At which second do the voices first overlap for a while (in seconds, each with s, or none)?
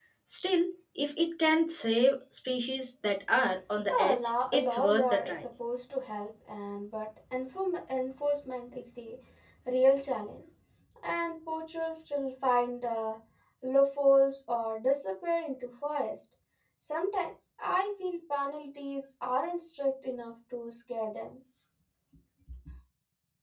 3.9 s